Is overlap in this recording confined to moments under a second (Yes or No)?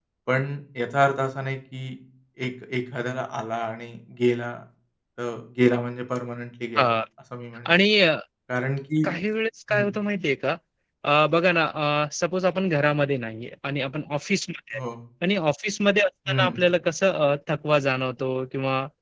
Yes